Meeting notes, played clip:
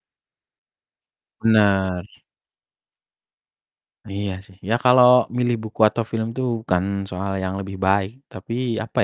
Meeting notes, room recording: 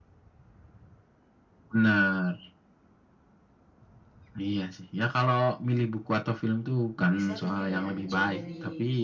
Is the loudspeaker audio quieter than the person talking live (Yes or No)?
No